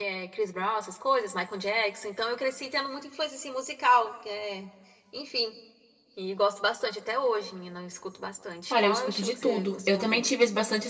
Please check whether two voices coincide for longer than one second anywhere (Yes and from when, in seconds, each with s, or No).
Yes, from 8.7 s